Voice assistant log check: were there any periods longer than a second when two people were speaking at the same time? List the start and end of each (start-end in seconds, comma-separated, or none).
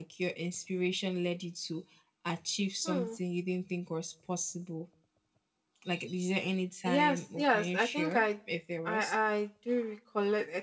6.8-8.3